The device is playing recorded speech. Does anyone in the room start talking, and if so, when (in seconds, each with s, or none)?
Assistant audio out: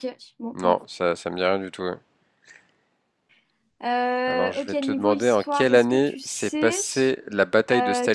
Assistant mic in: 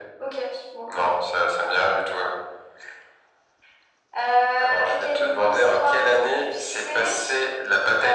none